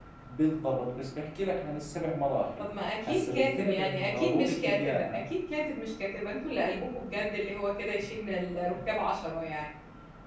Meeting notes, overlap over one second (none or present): present